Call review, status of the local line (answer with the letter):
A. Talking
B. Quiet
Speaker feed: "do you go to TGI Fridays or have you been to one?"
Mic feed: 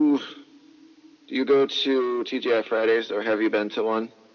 B